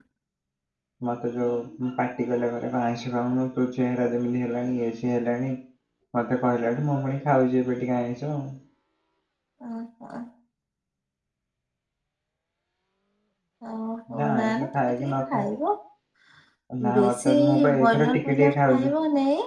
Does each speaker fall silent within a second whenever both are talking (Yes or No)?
No